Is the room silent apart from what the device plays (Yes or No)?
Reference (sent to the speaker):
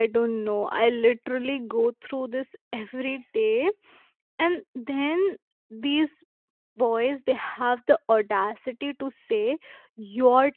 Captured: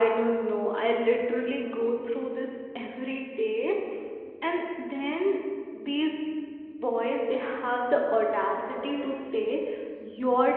Yes